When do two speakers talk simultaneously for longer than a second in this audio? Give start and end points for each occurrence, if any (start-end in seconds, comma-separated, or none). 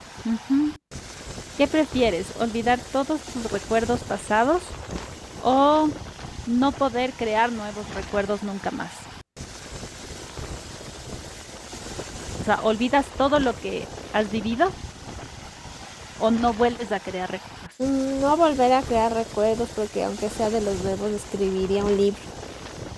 none